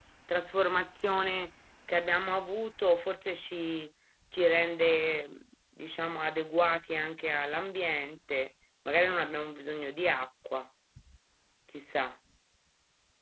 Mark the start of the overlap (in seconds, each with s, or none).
none